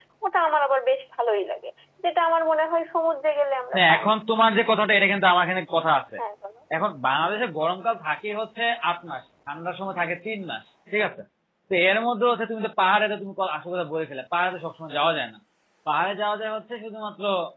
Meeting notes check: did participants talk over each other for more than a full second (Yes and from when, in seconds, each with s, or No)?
No